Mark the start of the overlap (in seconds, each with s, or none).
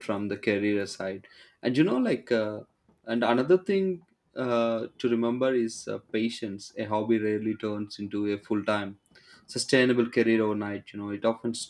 none